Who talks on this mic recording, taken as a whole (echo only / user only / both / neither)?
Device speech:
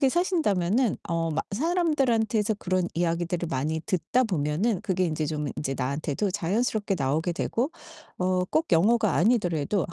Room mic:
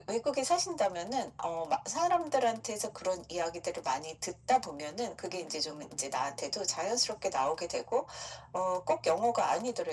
echo only